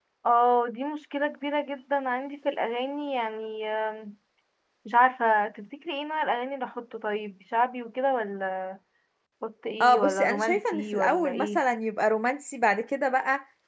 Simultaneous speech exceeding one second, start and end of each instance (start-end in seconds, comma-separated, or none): 9.8-11.6